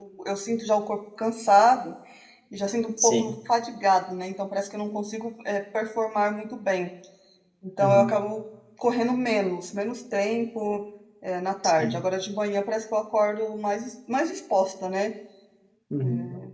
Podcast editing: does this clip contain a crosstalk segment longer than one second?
No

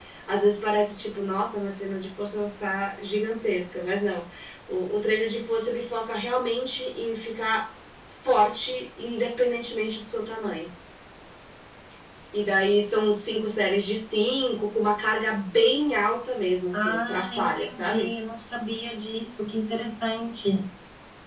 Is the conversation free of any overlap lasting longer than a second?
No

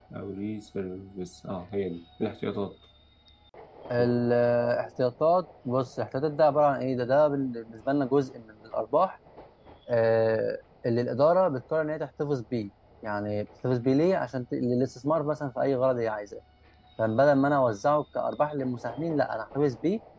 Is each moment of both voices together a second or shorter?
Yes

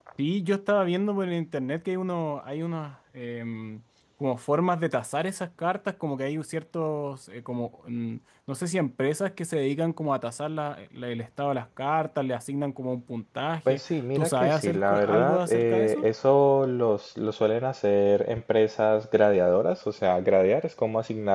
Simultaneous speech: Yes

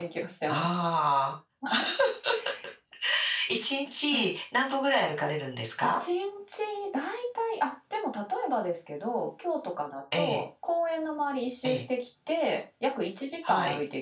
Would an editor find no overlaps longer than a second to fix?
Yes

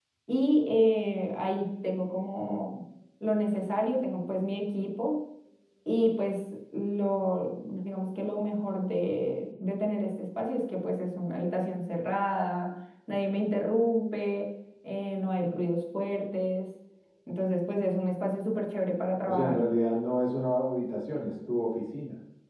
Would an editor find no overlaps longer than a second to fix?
Yes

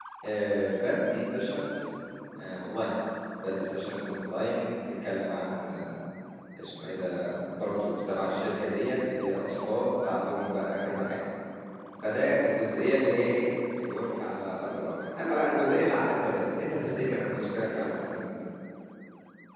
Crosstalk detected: No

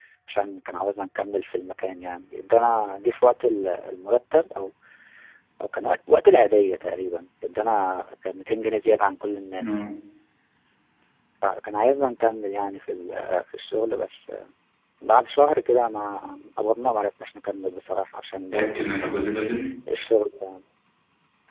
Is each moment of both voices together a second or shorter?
Yes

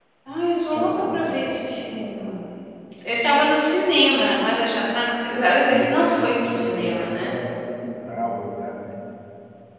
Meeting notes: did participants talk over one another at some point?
Yes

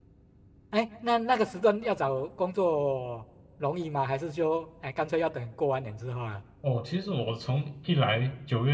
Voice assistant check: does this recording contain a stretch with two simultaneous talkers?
No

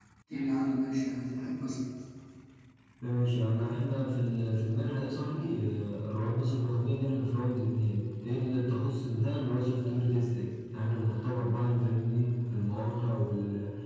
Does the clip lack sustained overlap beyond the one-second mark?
Yes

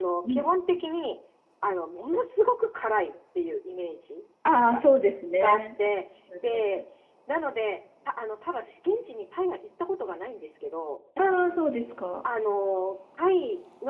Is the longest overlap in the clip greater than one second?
No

